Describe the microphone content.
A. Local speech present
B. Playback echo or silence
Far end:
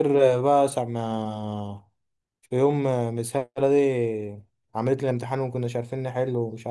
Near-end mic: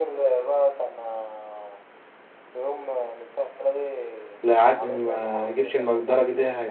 A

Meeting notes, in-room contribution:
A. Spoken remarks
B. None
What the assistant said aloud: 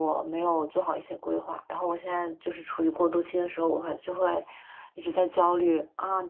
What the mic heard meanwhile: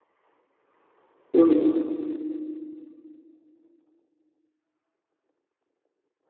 A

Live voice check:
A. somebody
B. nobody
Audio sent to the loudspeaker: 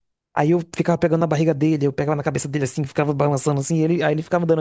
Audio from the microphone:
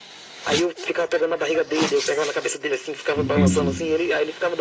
A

